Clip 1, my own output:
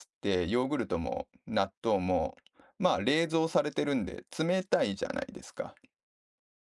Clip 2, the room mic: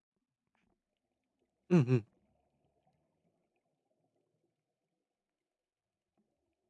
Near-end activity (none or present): present